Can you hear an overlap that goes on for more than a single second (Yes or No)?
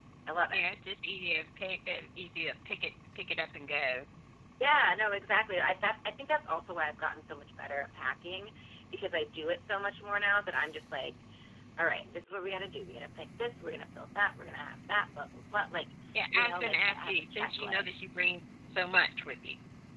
Yes